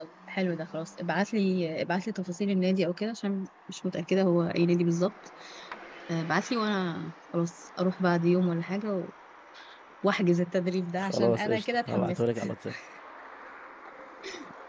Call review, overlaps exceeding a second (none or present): present